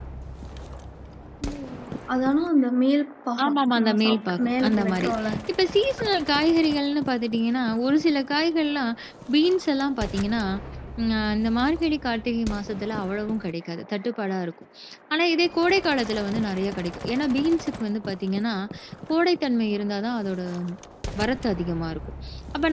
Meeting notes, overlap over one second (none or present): present